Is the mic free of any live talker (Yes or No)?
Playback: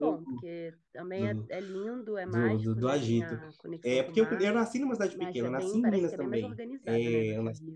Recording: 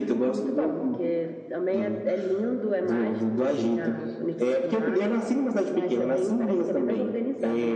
Yes